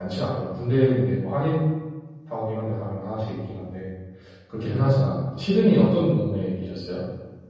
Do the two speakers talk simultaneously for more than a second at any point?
No

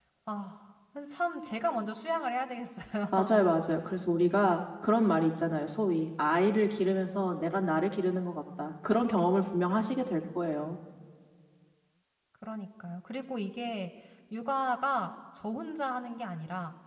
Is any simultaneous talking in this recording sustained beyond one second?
No

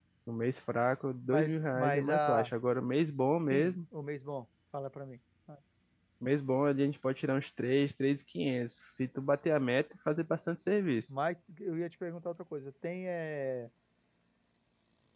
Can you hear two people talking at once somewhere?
Yes, from 1.2 s

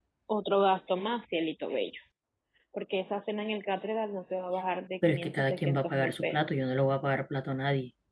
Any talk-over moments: Yes, from 5.0 s

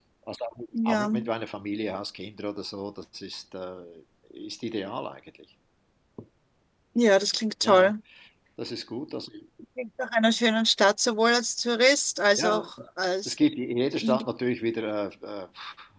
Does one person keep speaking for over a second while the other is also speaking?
No

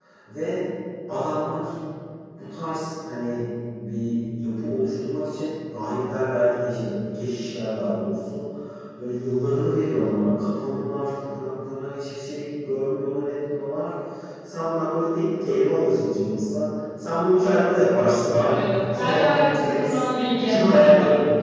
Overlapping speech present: Yes, from 18.4 s

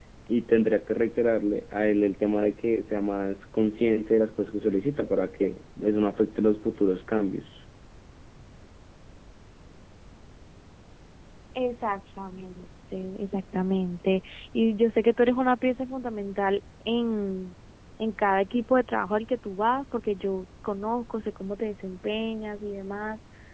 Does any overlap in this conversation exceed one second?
No

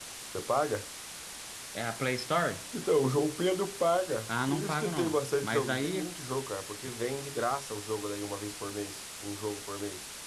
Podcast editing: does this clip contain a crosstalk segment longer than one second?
Yes, from 4.3 s

